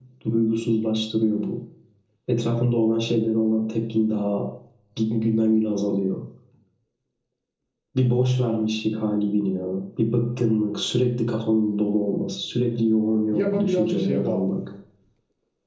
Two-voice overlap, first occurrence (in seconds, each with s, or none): 13.3 s